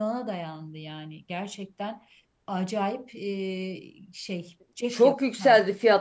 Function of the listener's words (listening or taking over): taking over